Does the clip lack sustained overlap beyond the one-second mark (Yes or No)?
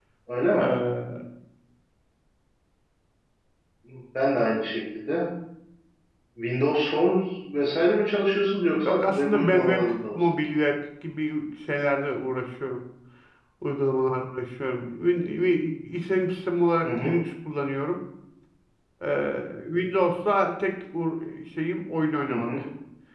No